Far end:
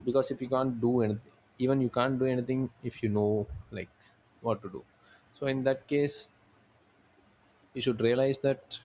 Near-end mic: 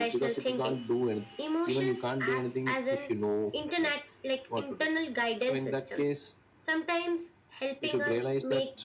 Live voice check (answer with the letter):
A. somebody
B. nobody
A